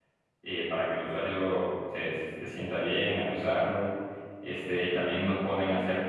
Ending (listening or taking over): listening